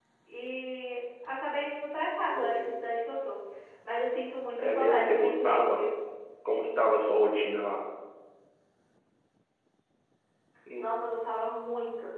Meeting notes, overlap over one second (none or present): present